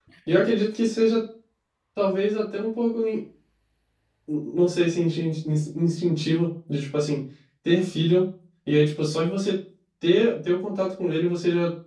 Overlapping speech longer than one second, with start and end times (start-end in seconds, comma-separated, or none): none